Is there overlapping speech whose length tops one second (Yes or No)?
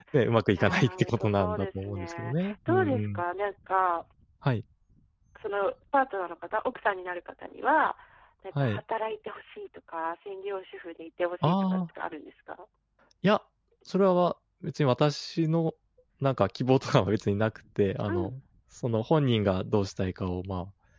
Yes